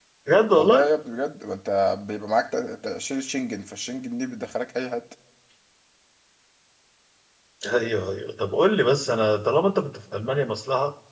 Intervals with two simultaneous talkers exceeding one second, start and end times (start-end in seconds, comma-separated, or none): none